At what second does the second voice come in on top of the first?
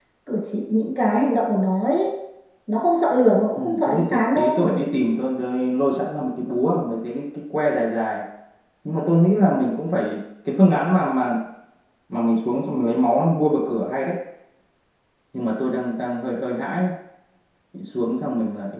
4 s

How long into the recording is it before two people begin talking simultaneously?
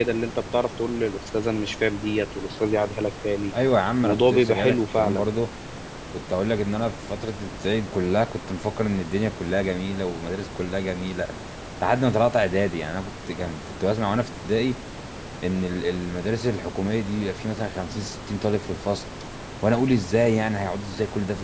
4 s

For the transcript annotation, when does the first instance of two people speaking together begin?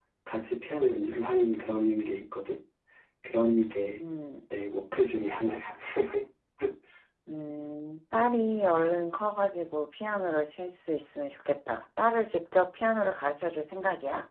none

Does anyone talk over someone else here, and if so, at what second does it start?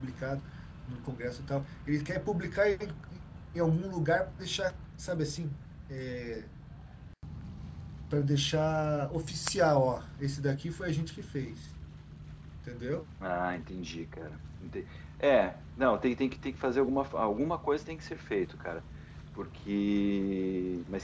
none

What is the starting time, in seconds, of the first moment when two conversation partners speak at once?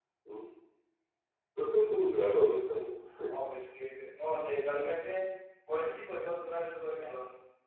none

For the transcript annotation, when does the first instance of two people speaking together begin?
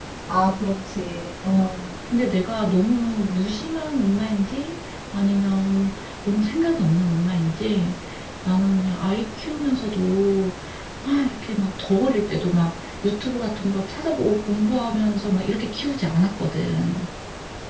none

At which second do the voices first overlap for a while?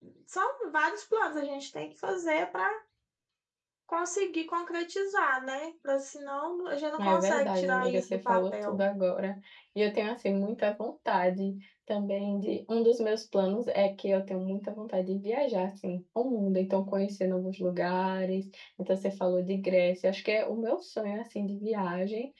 7 s

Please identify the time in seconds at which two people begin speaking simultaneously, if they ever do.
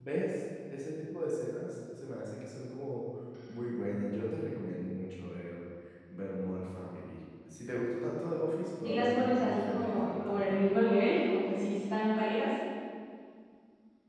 9 s

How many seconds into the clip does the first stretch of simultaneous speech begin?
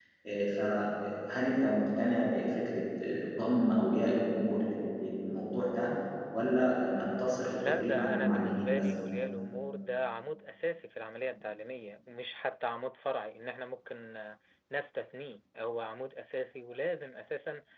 8 s

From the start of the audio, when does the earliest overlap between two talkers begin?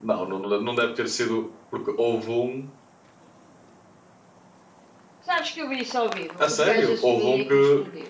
6 s

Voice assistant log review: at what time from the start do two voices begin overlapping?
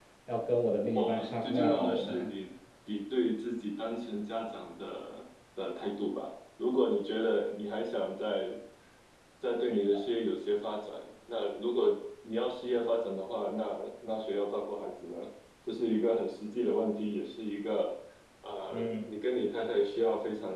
1 s

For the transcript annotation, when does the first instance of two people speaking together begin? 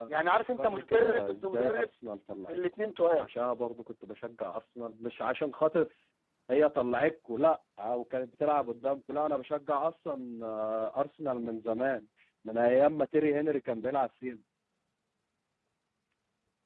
1 s

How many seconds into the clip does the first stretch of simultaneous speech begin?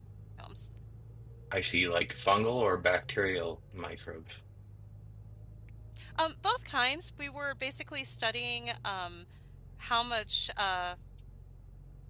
none

